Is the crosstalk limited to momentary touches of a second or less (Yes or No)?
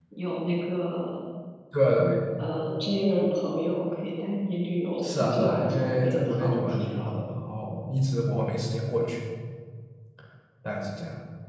No